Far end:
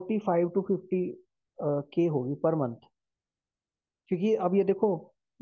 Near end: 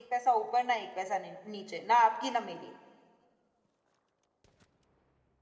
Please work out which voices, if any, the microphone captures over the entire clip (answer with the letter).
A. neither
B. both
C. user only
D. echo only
C